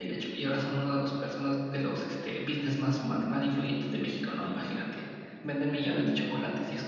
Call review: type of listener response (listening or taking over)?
listening